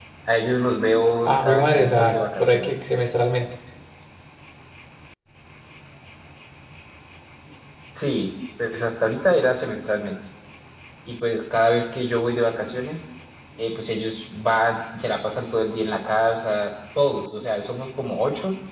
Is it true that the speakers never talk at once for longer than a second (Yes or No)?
No